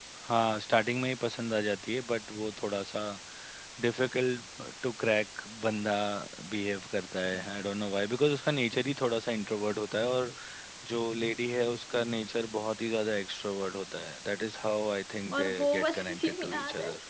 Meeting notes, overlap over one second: present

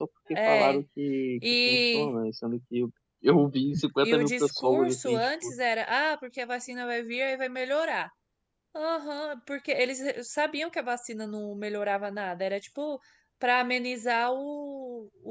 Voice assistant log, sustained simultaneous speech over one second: present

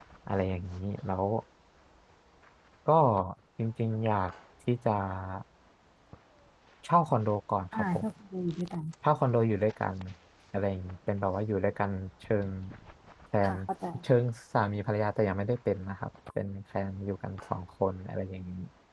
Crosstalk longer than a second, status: none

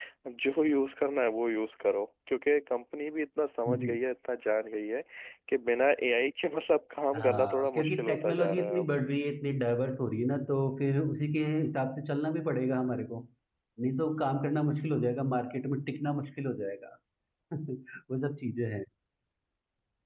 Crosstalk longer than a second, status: present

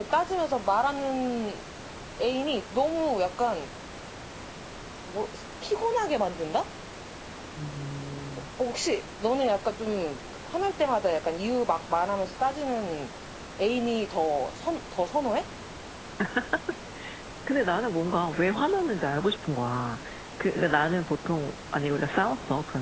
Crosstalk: none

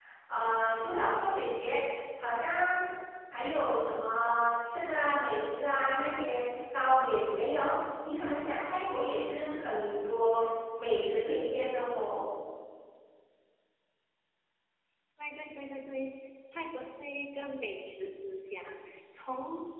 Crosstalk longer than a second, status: none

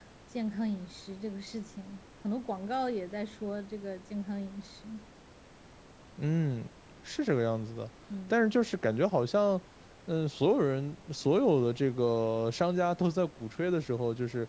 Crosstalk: none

